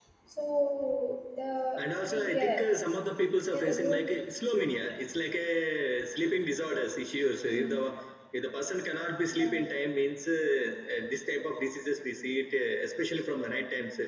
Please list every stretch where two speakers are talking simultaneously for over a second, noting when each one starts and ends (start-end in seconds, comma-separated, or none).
none